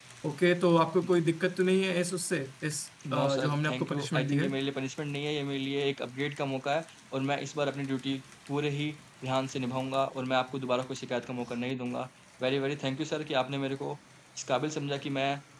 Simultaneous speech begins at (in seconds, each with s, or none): 3.0 s